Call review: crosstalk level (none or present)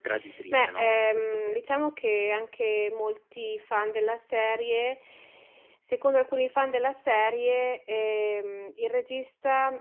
present